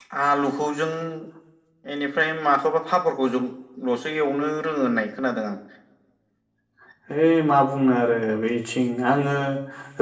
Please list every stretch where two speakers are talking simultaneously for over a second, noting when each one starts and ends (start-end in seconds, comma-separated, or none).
none